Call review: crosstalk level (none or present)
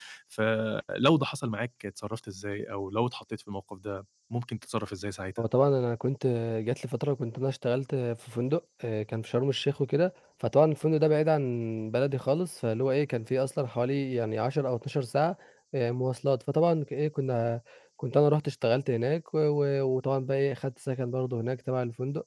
none